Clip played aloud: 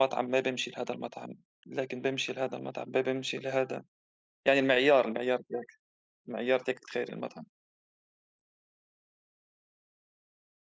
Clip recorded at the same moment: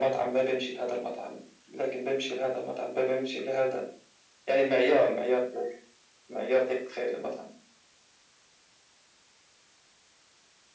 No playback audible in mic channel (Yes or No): No